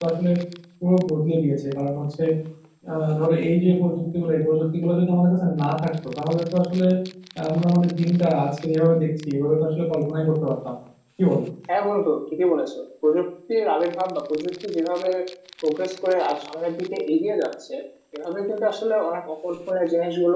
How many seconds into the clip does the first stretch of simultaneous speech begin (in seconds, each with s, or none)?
none